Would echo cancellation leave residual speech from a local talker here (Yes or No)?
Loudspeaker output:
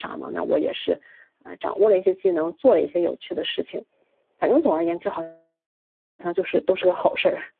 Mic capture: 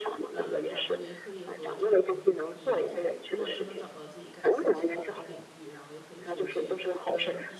Yes